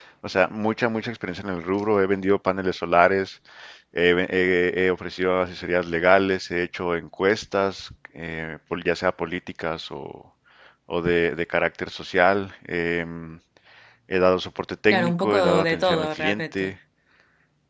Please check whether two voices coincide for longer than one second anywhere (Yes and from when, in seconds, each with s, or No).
Yes, from 14.9 s